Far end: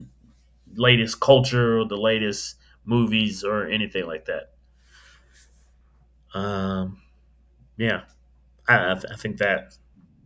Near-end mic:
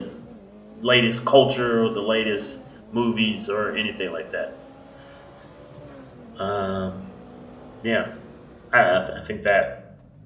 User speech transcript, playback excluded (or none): none